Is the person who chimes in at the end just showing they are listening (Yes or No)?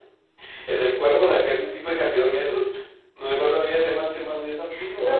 No